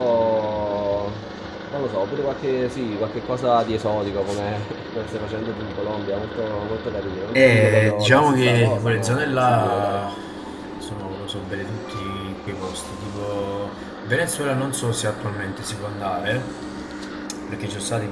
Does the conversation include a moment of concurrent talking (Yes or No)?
Yes